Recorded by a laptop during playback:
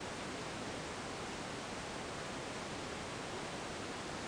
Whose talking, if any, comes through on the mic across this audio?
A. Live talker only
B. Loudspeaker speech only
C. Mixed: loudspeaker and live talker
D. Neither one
D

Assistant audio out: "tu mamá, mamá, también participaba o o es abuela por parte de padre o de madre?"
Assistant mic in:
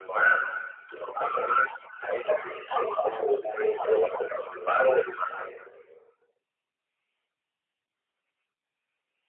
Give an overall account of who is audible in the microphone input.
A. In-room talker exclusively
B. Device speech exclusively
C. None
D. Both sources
B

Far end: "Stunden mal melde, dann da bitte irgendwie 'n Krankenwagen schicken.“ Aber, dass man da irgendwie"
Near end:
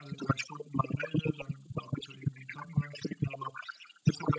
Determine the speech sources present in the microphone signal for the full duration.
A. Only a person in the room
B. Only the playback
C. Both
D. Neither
B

